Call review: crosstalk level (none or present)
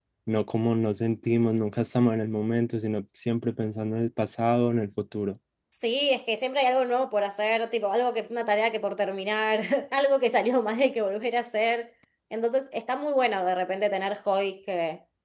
none